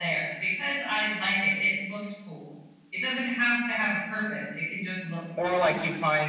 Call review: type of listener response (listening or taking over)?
taking over